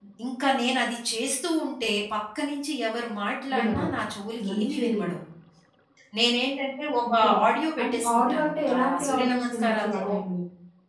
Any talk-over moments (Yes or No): Yes